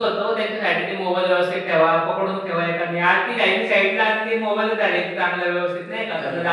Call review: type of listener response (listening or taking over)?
taking over